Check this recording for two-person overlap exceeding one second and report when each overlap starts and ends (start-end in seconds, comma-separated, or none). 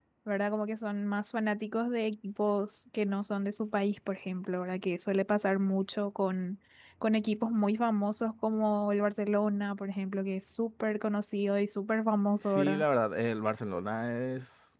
none